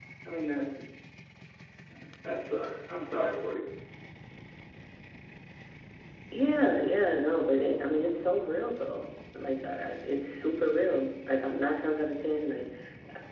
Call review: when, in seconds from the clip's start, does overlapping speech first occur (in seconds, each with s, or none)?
none